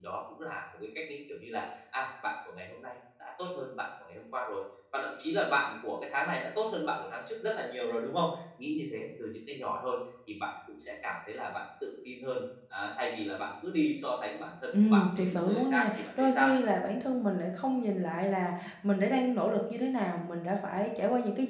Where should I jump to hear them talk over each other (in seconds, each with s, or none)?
14.7 s